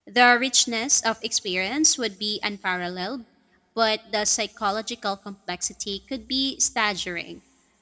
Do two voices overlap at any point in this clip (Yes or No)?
No